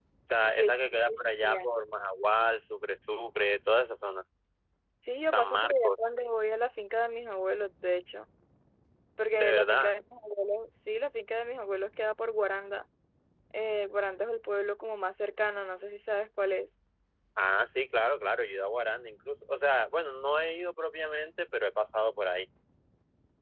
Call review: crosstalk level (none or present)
present